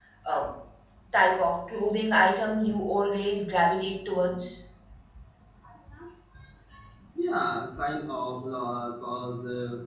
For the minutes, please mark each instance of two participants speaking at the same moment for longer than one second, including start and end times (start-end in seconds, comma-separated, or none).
none